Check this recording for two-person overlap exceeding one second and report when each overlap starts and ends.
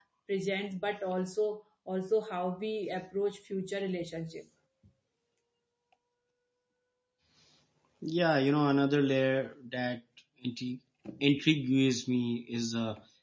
none

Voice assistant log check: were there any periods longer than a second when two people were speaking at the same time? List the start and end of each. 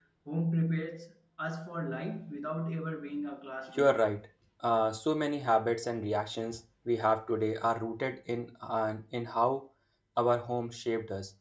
none

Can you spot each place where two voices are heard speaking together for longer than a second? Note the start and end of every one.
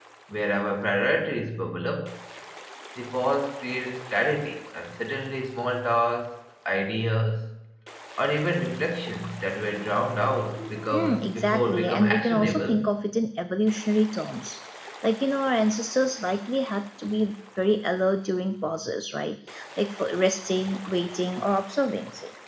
10.9-12.8

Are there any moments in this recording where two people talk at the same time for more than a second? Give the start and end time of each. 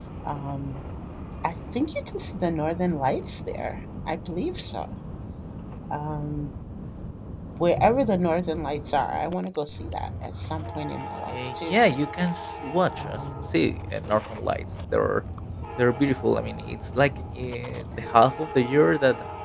none

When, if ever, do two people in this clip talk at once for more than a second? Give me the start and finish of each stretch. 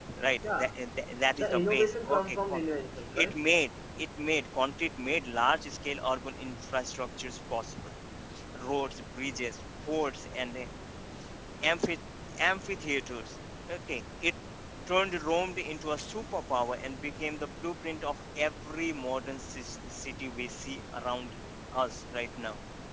1.3-2.6

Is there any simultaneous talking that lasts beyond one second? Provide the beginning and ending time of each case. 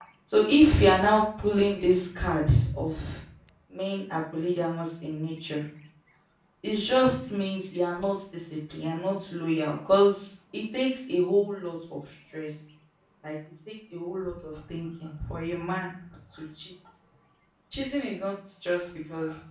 none

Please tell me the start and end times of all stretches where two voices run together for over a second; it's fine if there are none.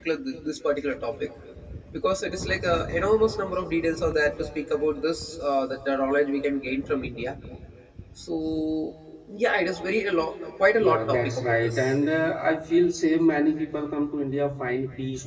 10.7-11.9

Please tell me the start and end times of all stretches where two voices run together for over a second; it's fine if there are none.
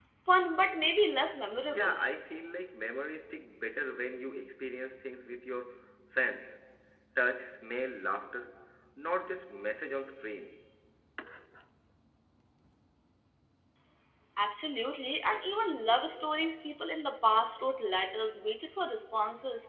none

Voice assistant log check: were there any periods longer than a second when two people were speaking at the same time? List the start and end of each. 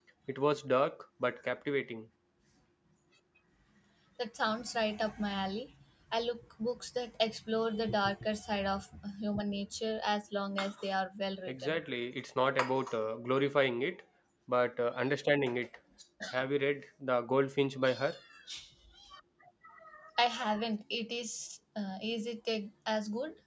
none

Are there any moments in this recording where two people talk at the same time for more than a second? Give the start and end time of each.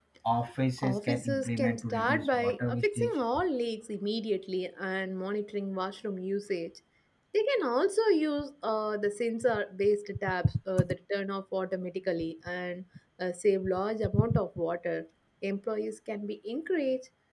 0.8-3.2

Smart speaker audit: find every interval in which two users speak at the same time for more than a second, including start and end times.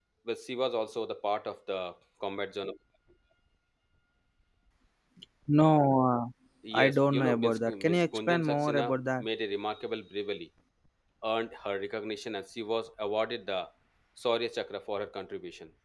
6.8-9.2

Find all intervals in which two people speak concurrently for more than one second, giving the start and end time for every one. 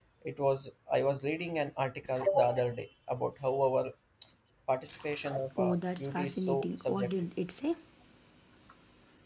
5.6-7.1

